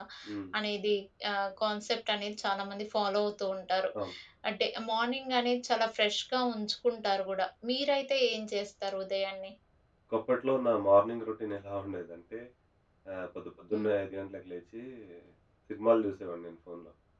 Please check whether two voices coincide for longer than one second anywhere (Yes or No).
No